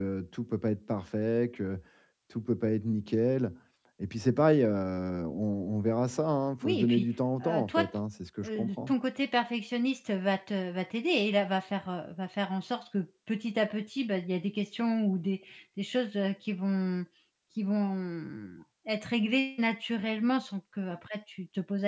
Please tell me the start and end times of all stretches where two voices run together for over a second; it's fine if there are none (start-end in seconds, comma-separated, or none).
none